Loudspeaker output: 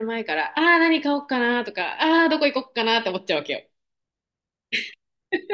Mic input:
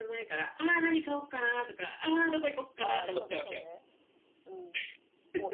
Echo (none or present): present